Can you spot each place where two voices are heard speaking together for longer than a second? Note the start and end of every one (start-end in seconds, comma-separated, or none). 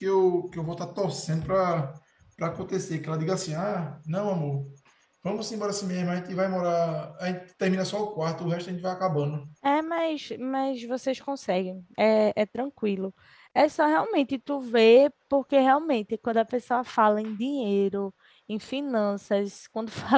none